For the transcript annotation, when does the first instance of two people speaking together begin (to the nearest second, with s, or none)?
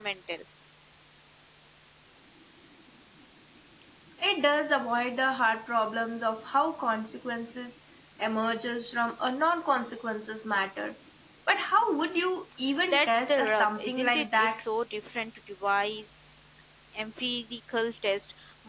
13 s